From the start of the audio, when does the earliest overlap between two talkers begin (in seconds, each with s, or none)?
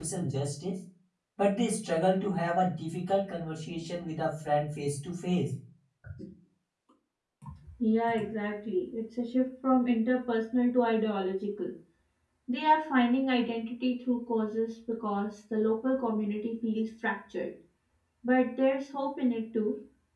none